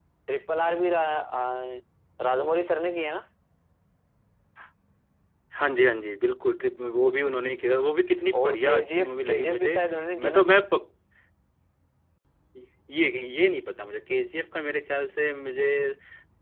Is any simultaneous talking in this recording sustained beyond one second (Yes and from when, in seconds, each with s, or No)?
Yes, from 8.3 s